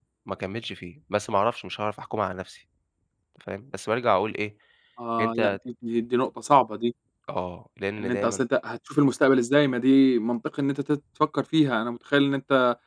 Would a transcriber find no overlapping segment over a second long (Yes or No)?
Yes